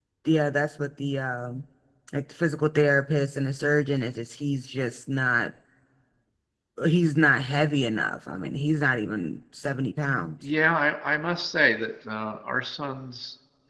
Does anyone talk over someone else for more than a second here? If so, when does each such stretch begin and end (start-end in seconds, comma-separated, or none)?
none